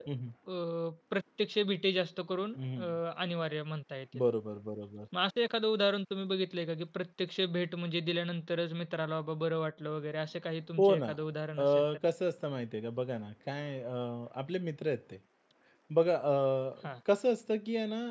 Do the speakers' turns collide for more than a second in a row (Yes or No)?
No